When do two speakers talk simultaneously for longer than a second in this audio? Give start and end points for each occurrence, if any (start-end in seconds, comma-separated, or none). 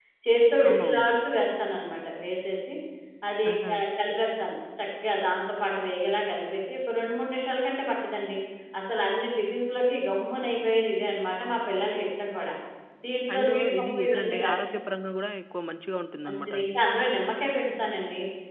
13.3-14.5